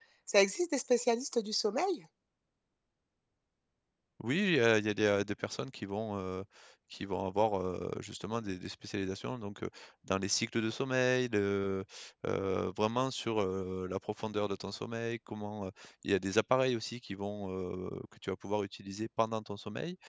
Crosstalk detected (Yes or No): No